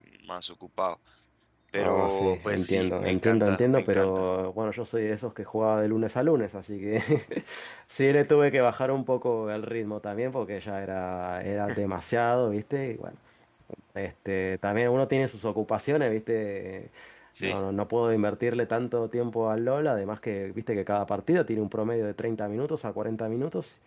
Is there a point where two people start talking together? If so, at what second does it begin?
2 s

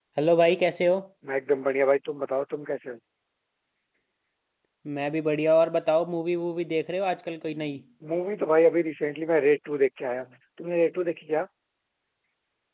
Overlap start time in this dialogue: none

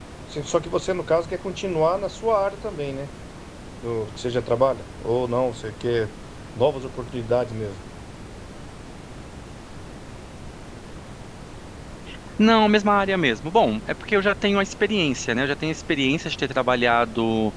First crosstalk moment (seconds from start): none

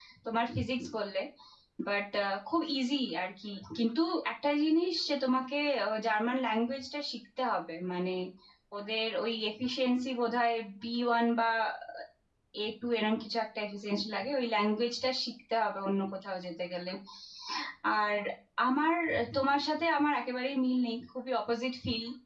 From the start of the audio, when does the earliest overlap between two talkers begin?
none

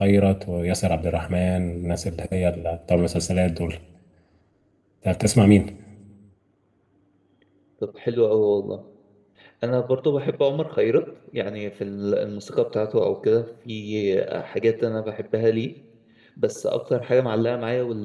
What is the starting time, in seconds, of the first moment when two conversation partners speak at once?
none

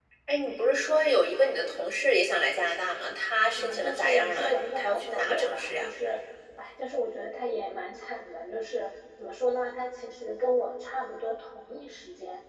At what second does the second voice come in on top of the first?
4 s

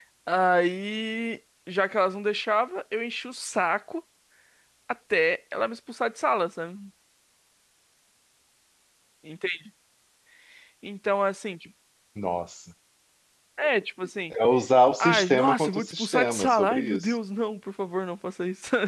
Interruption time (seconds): 15 s

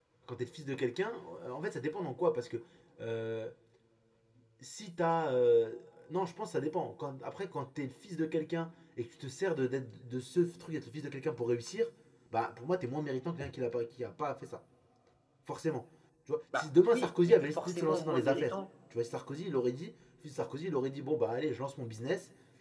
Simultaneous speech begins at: 17 s

